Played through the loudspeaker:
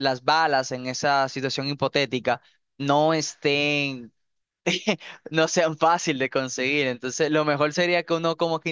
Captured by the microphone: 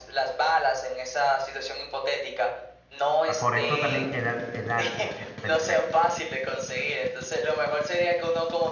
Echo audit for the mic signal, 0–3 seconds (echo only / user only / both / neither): echo only